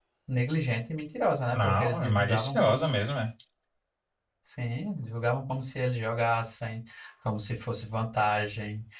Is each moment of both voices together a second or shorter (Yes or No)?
No